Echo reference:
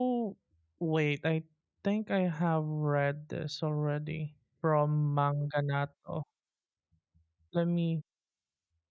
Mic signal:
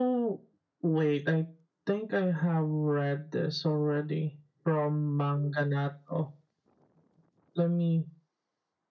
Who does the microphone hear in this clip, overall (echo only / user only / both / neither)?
echo only